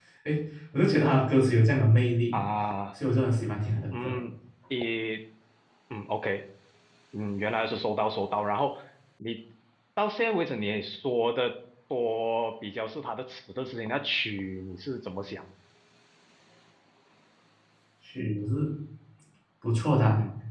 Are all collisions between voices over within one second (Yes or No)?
Yes